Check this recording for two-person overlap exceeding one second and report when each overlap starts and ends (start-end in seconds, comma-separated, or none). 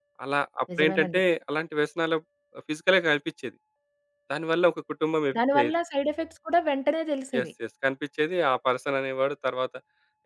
none